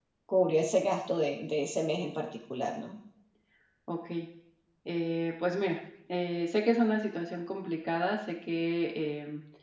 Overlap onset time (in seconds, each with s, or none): none